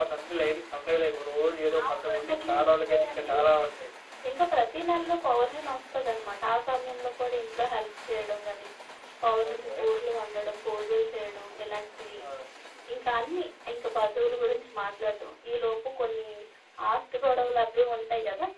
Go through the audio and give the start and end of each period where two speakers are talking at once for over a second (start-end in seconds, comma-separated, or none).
1.9-3.3